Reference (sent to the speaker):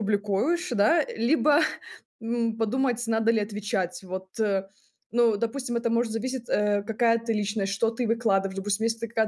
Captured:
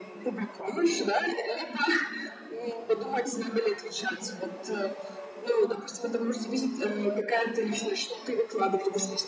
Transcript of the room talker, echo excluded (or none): none